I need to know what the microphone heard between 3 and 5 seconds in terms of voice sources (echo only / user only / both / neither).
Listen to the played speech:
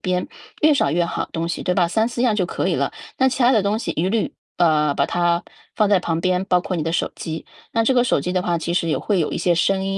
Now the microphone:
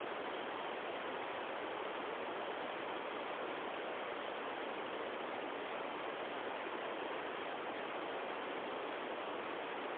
neither